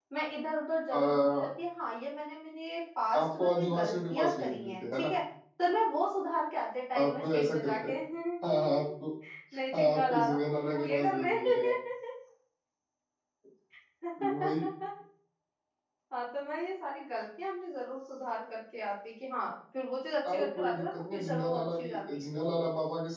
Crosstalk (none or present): present